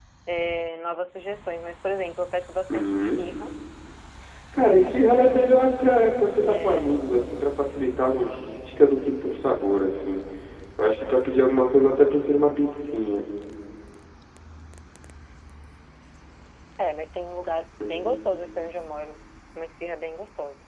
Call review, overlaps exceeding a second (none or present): present